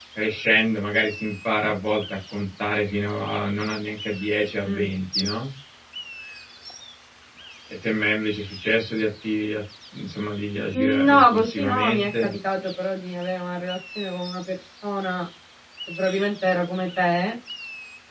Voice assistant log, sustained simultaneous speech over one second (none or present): present